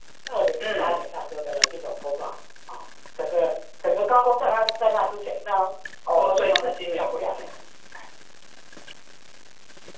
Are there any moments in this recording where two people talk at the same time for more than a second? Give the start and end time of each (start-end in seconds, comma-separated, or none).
6.2-7.5